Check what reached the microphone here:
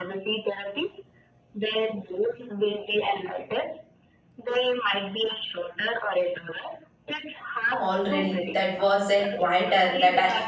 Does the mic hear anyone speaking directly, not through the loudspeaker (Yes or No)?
Yes